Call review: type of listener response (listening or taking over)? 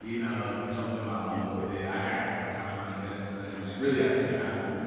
taking over